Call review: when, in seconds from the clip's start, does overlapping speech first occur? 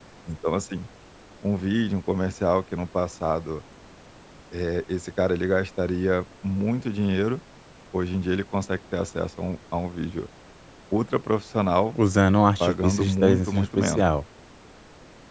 12.6 s

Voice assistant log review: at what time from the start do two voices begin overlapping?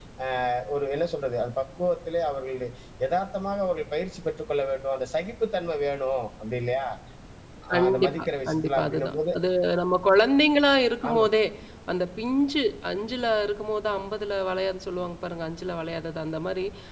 7.7 s

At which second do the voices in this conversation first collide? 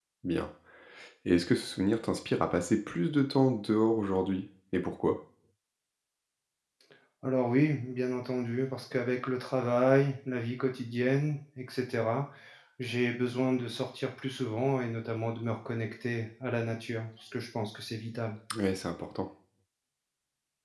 none

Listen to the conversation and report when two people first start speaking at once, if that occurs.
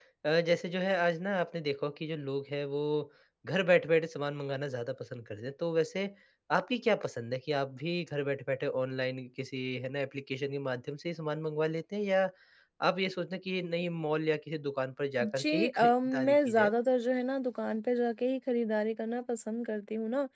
15.2 s

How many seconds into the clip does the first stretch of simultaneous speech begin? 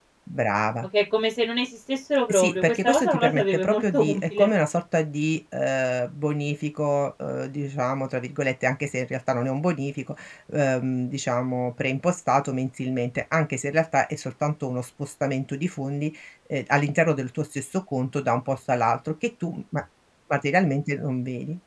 2.3 s

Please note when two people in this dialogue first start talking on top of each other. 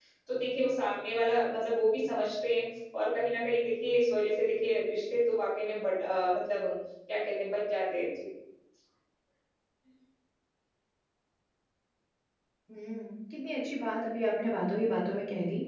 none

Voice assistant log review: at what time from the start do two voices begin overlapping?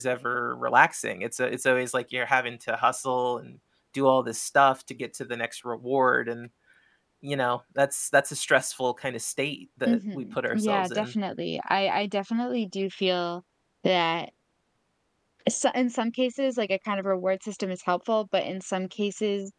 9.9 s

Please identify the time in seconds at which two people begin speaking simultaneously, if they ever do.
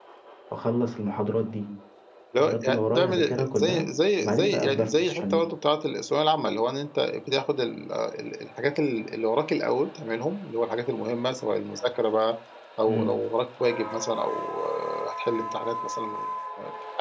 2.3 s

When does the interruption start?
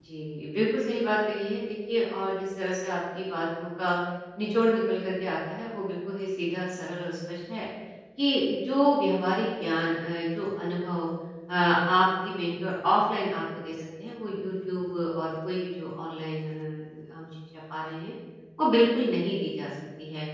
none

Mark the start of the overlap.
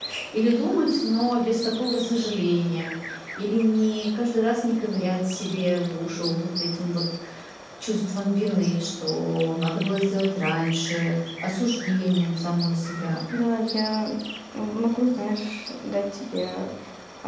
none

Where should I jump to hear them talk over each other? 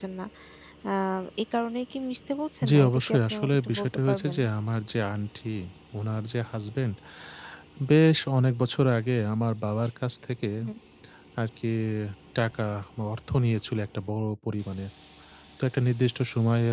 2.6 s

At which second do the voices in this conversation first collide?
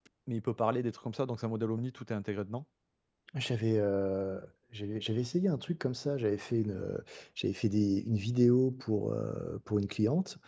none

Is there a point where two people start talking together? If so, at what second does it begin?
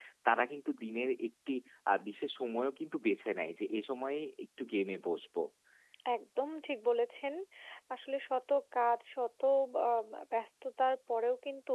none

